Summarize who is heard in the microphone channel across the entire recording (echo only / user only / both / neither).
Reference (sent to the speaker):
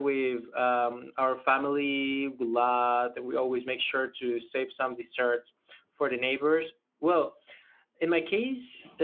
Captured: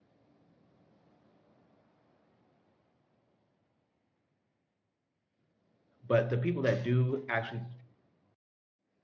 user only